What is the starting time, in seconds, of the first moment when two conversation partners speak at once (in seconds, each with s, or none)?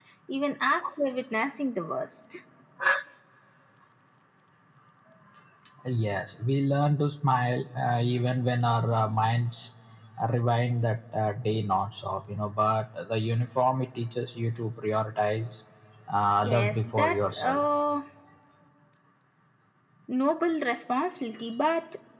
16.4 s